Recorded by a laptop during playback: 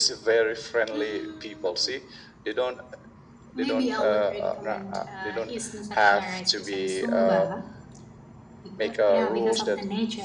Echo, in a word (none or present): present